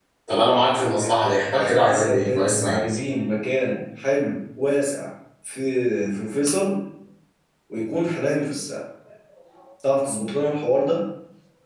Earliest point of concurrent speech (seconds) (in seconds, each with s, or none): 1.3 s